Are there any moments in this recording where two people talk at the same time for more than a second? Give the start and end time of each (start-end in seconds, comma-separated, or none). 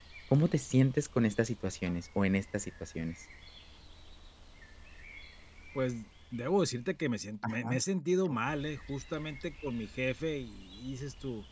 none